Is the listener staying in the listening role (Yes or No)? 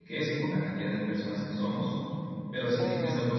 Yes